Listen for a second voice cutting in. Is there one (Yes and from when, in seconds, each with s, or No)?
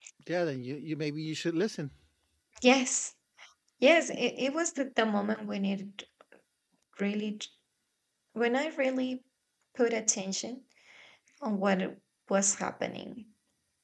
No